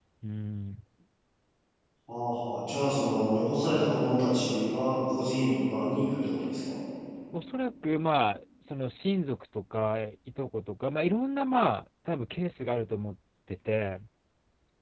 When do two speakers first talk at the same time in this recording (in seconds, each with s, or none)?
none